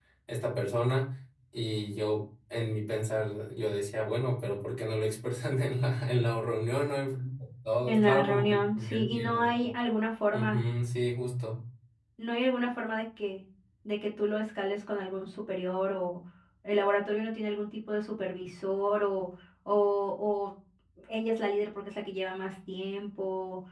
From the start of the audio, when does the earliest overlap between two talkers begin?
7.9 s

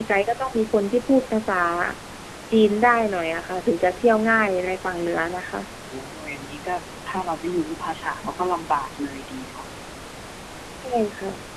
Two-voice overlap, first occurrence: none

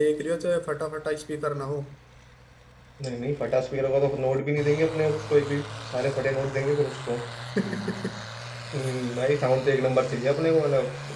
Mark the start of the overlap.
none

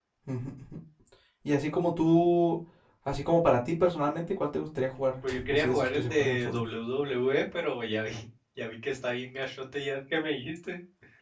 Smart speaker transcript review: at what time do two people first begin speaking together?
5.2 s

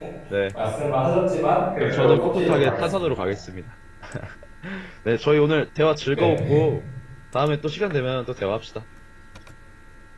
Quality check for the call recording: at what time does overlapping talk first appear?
1.8 s

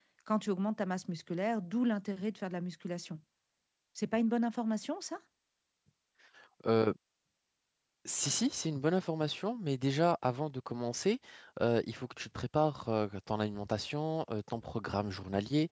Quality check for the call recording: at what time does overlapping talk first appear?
none

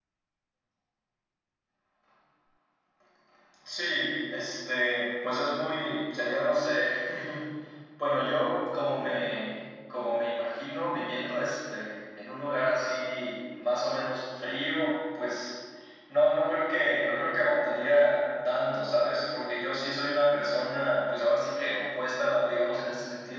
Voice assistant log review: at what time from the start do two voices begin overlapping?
none

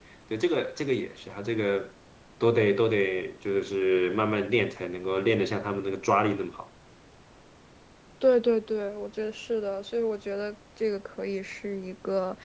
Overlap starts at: none

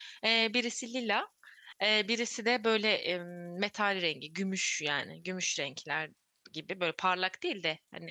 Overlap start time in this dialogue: none

